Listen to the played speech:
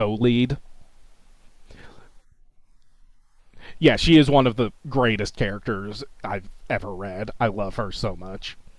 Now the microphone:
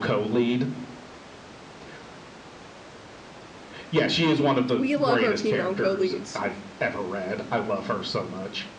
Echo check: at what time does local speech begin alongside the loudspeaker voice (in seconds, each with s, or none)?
4.7 s